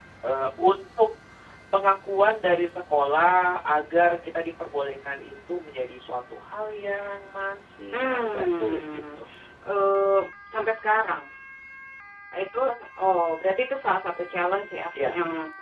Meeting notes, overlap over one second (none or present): present